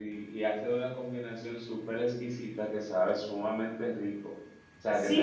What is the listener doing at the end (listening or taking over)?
taking over